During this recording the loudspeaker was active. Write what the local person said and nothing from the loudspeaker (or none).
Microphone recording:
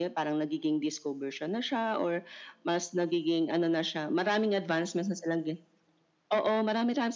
none